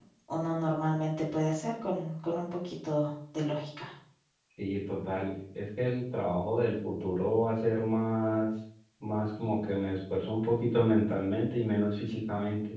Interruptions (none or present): none